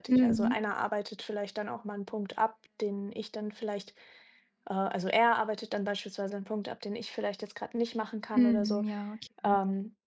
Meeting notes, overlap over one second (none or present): none